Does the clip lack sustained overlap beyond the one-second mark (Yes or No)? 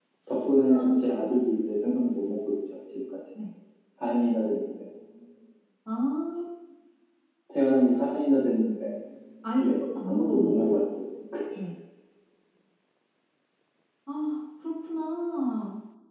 No